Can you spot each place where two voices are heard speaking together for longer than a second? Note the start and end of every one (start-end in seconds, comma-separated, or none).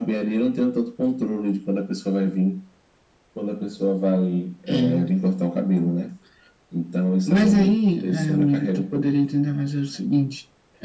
7.3-9.0